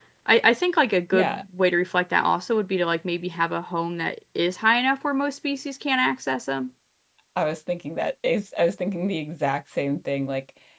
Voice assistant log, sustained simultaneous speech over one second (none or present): none